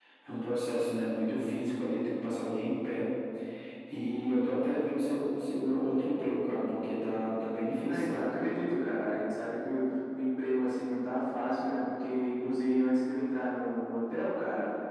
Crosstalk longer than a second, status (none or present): none